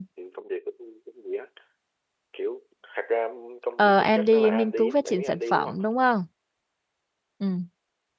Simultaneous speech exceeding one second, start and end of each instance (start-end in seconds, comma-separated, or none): 3.8-5.8